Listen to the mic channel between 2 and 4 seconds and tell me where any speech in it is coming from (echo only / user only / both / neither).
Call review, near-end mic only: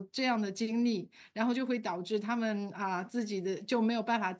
user only